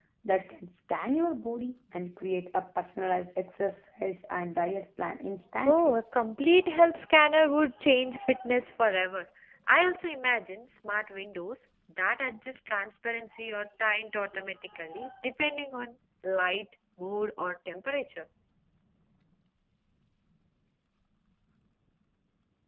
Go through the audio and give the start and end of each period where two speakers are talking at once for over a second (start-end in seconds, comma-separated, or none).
none